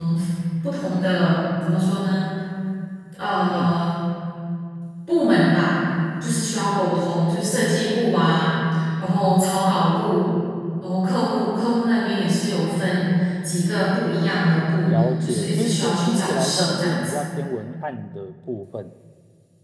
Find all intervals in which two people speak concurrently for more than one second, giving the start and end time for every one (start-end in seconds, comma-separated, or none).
14.8-17.2